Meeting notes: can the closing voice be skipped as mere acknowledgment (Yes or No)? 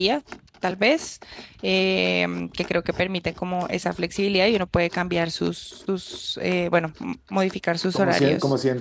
No